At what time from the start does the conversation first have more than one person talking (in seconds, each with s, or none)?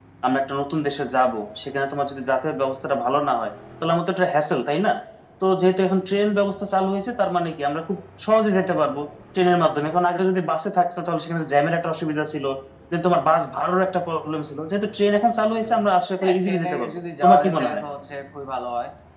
16.2 s